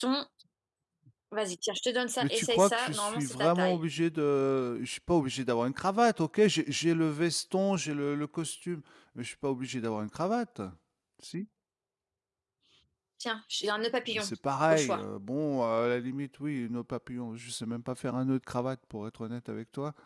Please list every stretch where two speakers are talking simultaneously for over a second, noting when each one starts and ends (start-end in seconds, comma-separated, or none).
2.2-3.8